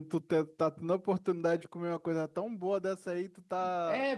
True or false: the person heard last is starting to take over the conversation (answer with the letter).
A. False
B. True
B